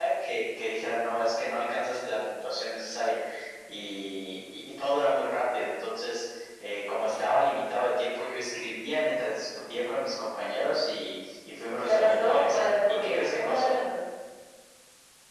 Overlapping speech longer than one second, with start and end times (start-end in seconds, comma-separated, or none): 11.8-13.7